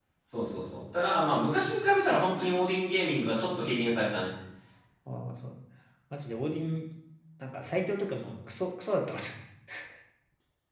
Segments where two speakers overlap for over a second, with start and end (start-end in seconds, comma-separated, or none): none